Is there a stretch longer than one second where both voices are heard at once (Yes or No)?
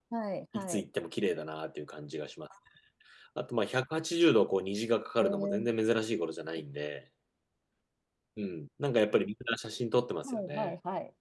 No